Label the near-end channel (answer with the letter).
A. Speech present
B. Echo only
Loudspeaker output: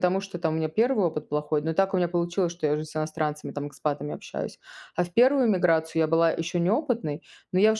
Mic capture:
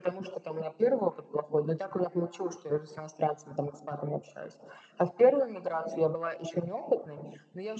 B